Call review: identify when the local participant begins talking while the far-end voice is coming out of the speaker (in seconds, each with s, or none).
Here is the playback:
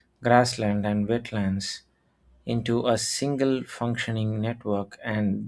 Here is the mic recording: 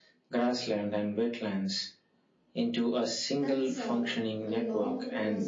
3.4 s